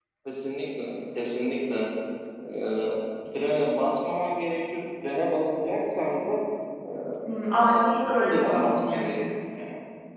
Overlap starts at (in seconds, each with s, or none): 7.6 s